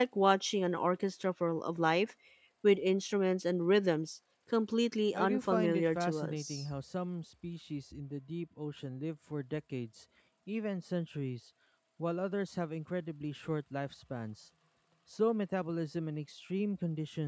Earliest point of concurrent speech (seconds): 5 s

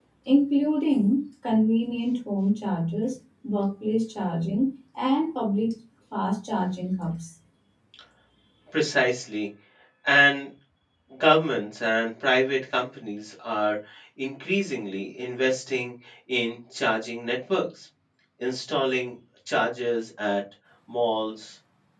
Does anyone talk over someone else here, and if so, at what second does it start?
none

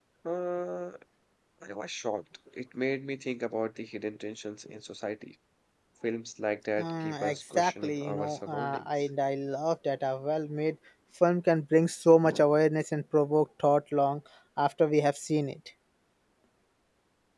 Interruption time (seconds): 7 s

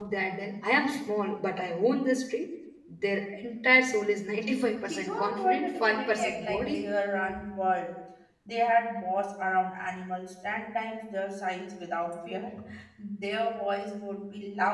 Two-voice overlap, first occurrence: 5 s

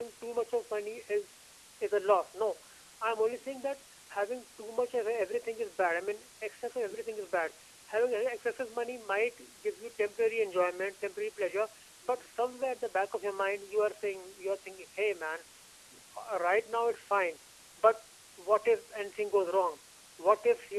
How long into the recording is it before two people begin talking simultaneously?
none

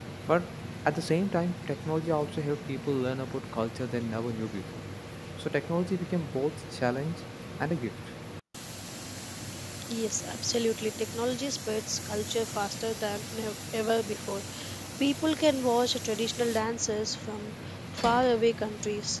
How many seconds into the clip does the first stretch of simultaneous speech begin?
none

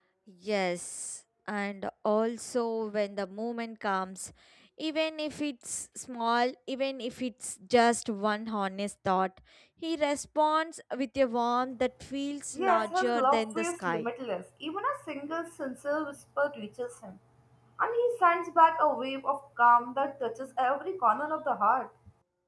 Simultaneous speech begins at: 13 s

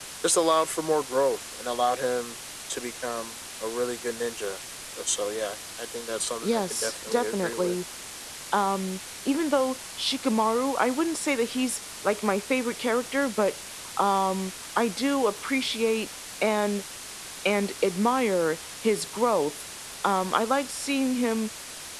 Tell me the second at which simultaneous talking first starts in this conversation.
6 s

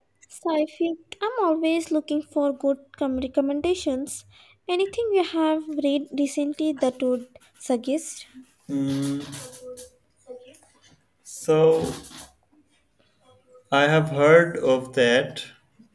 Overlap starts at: none

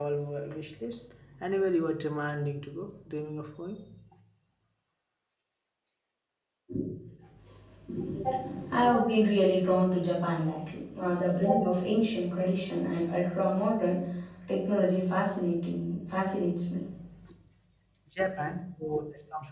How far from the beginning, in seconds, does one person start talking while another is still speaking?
none

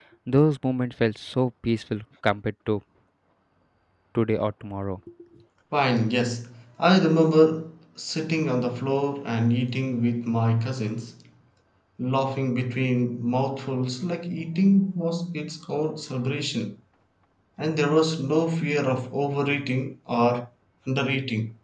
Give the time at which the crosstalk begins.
none

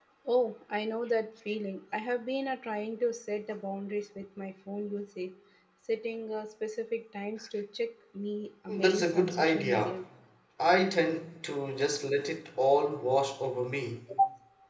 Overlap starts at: 9 s

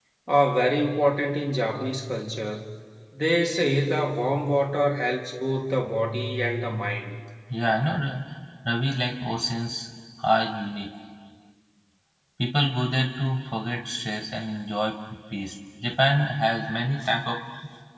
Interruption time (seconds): none

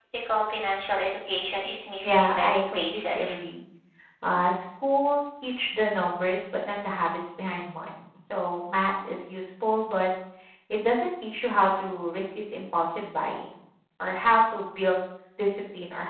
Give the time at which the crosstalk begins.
2 s

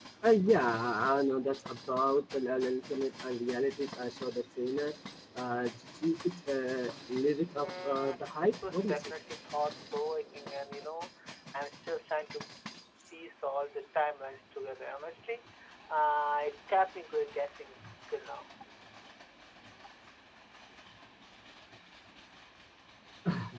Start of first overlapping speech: 8 s

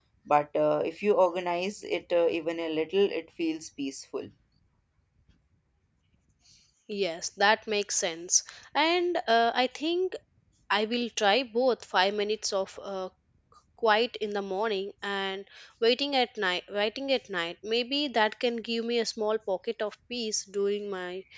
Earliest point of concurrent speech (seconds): none

